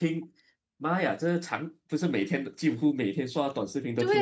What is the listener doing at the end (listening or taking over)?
taking over